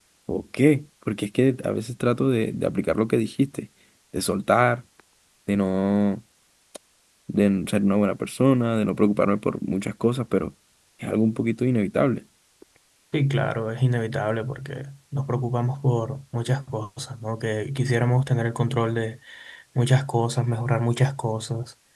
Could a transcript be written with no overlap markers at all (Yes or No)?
Yes